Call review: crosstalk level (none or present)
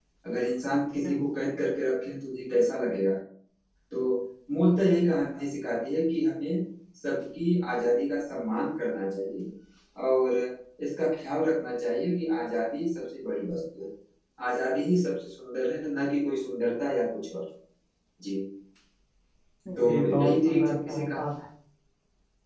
present